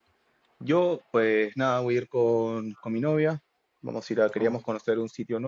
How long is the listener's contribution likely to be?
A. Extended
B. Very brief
B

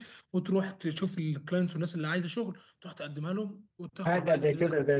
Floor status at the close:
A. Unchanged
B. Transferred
B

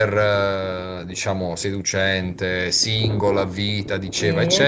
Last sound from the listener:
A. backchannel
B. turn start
A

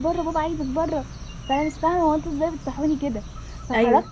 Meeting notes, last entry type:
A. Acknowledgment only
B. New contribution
A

